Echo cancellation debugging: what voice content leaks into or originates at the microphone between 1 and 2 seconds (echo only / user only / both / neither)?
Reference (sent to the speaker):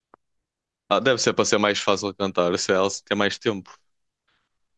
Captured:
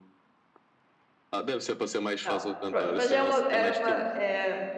echo only